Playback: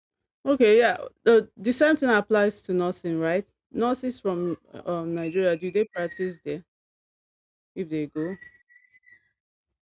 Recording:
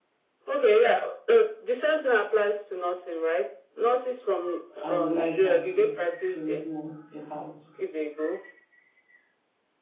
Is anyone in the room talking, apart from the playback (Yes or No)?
Yes